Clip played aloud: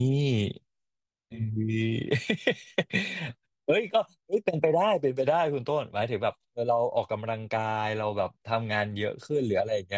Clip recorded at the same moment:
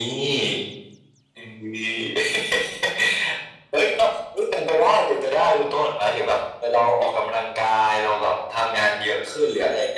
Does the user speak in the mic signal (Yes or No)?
No